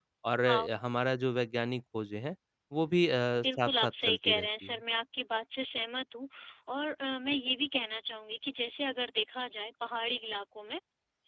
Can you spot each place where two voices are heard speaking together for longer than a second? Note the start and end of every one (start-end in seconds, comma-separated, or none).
3.4-4.7